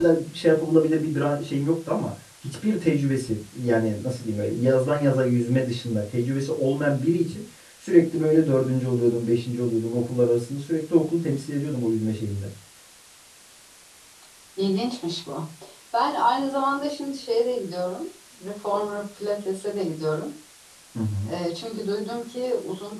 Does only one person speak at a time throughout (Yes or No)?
Yes